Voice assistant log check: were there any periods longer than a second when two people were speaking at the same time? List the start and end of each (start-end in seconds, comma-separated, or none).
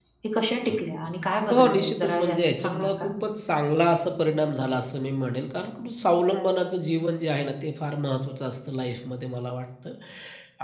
1.5-3.1